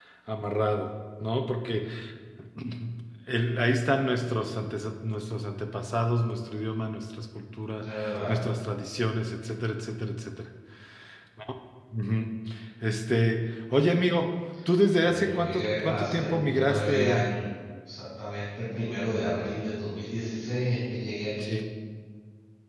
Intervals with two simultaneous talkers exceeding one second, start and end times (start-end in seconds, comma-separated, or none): 15.0-17.3